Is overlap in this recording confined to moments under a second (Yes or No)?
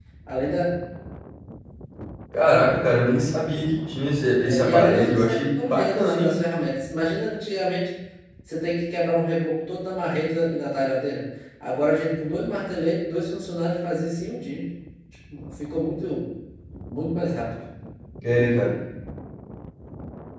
No